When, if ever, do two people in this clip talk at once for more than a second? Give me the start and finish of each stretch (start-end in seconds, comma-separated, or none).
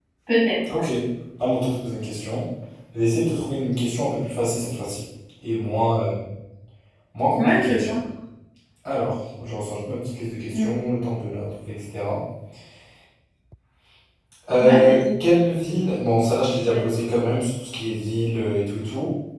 none